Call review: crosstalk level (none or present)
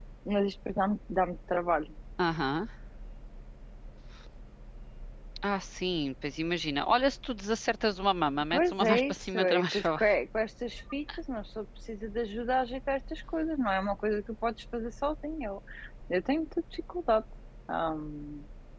present